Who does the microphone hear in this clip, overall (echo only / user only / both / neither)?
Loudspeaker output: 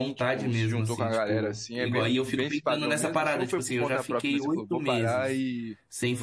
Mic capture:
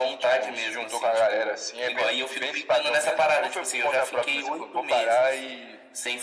echo only